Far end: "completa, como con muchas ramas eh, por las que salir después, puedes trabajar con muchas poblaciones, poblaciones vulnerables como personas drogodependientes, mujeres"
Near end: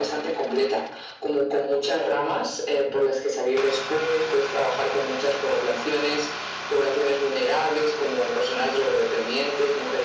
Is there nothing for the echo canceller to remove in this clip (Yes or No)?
No